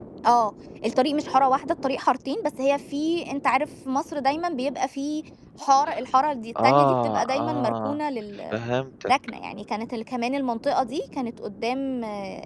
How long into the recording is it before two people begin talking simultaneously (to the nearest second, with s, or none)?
7 s